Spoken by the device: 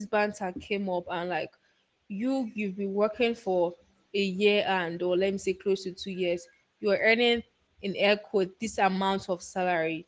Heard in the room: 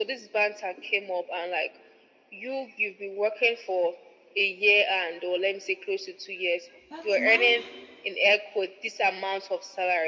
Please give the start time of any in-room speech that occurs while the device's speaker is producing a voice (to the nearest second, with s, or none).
7 s